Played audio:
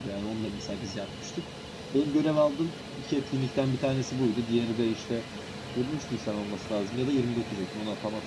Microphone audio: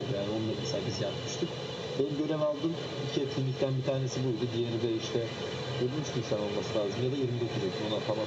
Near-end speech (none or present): none